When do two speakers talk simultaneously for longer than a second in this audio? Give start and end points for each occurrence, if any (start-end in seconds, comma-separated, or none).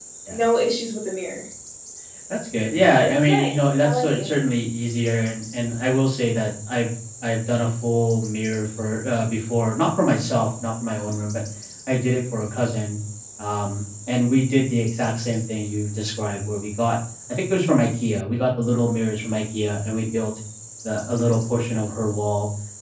3.0-4.3